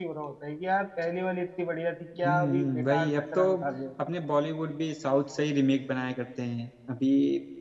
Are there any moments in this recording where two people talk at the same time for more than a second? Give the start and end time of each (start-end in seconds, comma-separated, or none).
2.2-3.4